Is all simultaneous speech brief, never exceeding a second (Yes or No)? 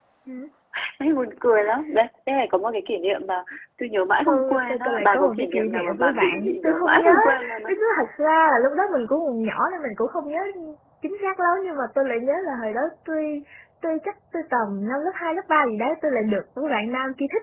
No